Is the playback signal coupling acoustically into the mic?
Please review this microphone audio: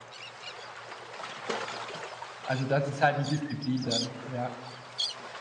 No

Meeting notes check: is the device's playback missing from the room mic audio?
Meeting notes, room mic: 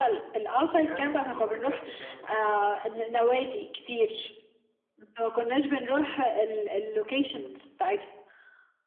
No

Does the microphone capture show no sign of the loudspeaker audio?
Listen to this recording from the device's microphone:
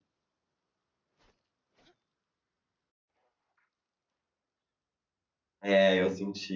Yes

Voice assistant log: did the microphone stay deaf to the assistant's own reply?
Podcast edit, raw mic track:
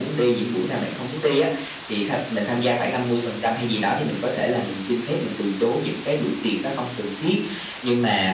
No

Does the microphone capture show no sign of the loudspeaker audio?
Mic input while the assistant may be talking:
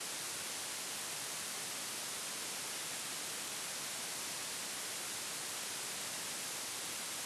Yes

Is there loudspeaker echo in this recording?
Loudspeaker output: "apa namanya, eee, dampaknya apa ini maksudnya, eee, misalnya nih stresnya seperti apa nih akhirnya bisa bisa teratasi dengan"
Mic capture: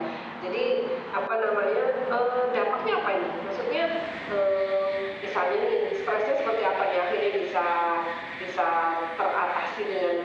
Yes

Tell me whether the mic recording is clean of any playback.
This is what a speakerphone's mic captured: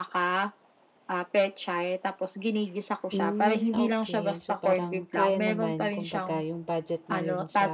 No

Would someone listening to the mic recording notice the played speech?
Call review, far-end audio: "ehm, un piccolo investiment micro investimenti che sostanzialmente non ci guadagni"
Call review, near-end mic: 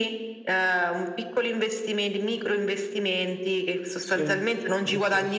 Yes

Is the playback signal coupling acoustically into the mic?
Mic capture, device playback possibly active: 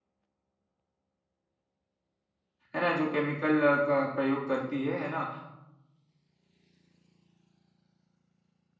No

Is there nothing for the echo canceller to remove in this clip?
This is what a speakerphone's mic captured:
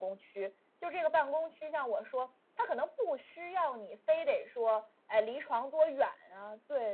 No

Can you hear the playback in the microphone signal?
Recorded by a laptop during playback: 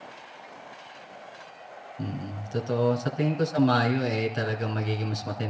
No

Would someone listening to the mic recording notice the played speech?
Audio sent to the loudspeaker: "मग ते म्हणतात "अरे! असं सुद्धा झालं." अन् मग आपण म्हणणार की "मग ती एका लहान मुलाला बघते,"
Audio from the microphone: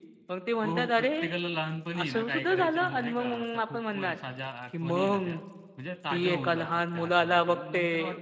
Yes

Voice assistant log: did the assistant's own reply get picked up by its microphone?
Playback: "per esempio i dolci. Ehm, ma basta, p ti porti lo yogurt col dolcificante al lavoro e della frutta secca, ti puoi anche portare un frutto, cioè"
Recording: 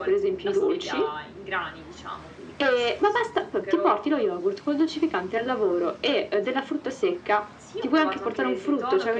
Yes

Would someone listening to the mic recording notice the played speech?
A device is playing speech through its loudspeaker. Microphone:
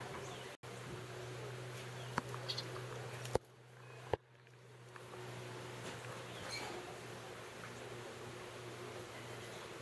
No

